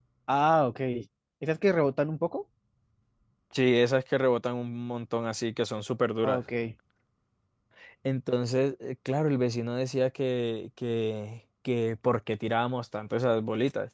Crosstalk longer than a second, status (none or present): none